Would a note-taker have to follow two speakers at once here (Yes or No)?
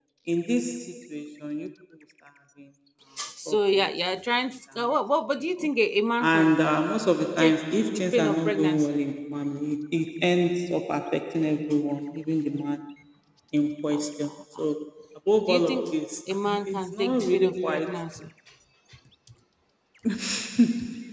Yes